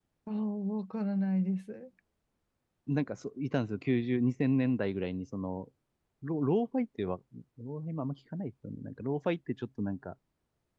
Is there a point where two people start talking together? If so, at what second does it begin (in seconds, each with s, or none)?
none